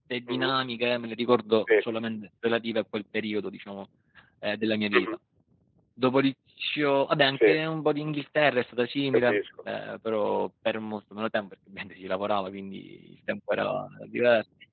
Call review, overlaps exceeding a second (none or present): none